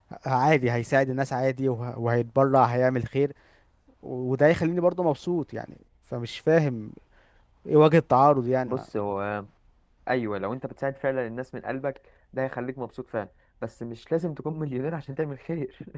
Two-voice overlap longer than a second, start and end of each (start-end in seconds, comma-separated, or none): none